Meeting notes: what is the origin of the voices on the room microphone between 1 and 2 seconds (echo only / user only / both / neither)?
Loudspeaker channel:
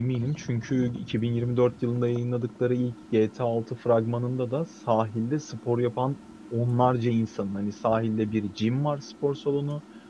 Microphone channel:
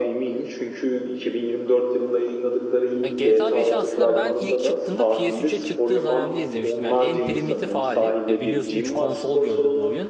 echo only